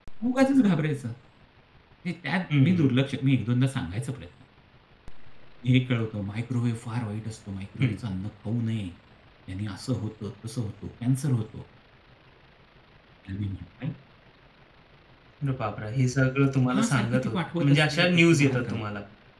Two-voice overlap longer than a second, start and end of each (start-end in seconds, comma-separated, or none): 16.7-18.8